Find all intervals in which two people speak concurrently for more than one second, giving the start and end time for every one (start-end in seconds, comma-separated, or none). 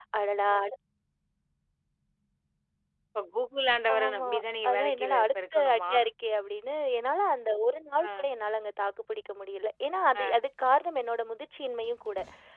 4.7-5.9